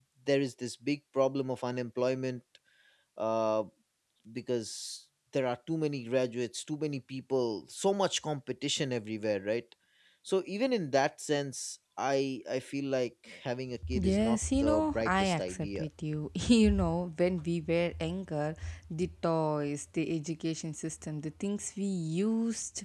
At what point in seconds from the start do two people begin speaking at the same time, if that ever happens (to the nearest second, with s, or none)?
14 s